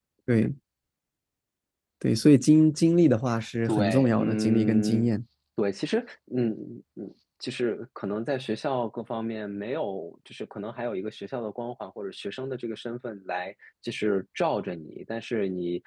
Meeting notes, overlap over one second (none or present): present